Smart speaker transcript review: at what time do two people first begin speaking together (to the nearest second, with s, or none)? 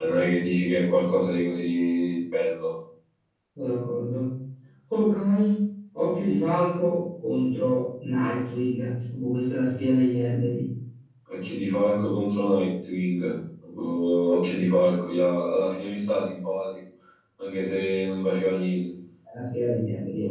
none